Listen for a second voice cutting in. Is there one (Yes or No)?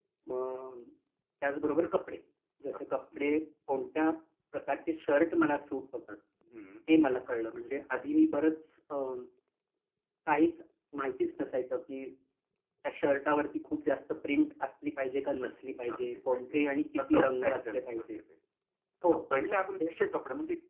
Yes